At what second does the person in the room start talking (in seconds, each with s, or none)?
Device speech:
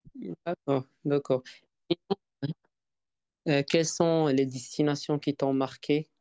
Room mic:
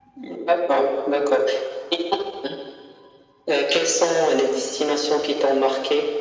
none